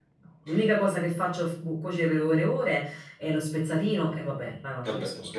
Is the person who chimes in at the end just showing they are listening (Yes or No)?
No